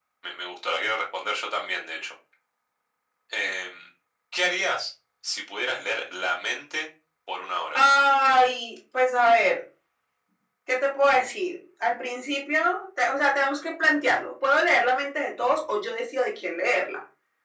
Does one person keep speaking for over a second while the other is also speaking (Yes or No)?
No